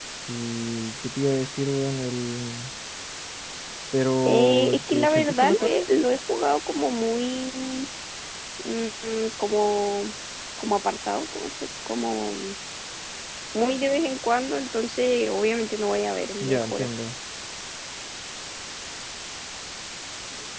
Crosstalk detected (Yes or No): Yes